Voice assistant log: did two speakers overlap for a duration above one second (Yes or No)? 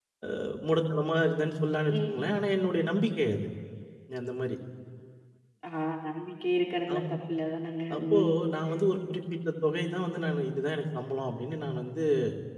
No